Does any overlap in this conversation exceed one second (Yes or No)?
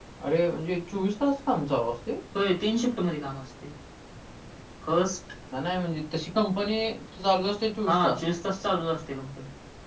No